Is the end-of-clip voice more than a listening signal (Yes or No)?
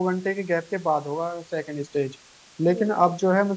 No